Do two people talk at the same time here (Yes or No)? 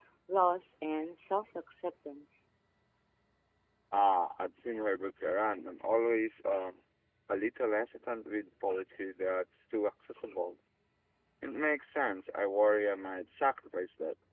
No